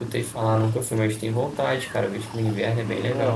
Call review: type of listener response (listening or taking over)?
taking over